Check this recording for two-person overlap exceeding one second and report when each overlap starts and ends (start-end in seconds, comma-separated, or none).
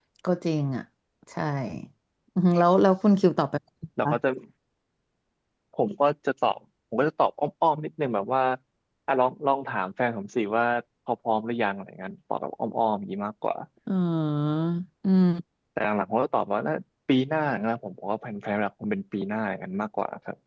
none